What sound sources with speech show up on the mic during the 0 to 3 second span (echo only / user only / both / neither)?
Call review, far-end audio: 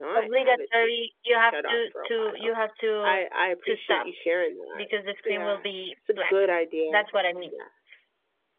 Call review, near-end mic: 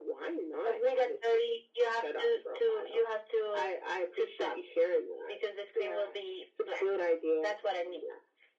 echo only